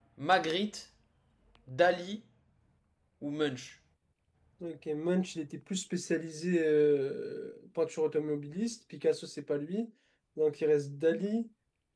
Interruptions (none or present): none